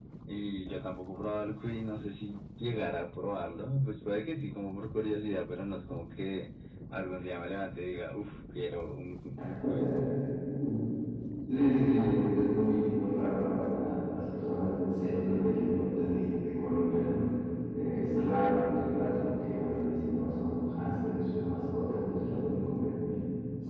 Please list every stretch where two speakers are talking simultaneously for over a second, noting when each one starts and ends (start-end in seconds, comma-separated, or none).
none